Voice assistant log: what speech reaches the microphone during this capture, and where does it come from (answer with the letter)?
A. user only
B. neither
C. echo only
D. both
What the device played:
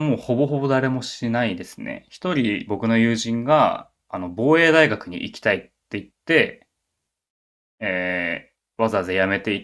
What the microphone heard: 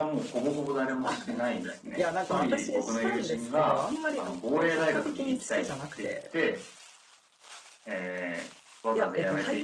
D